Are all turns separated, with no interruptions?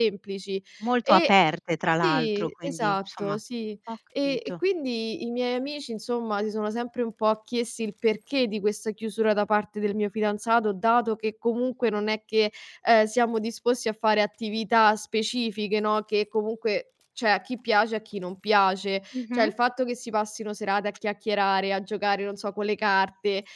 No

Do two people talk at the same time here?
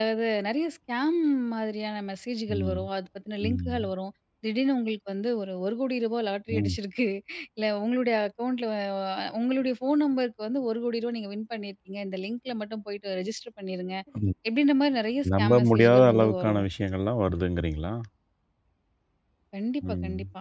Yes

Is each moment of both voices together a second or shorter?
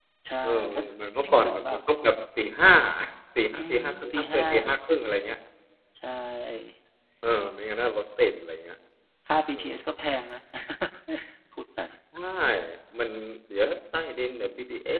No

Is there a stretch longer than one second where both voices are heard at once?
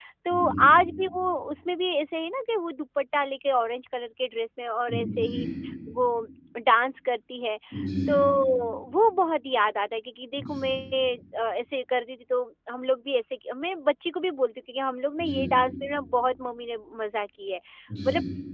No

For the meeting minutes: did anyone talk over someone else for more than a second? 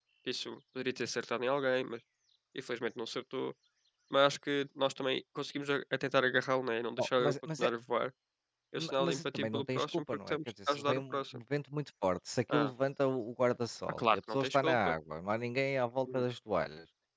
Yes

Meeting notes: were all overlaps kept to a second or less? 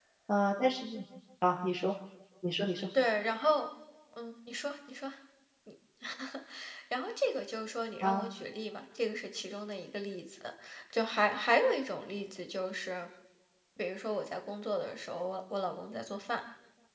Yes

